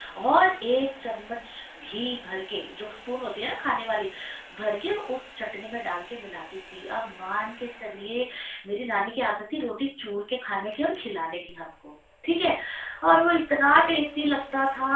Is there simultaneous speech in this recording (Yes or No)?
No